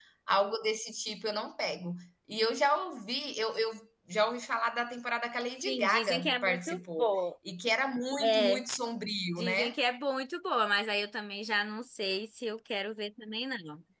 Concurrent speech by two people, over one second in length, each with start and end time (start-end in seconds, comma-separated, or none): 5.7-7.1